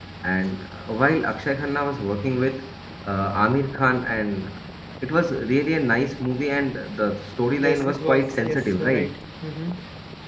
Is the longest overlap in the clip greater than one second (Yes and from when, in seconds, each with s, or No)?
Yes, from 7.6 s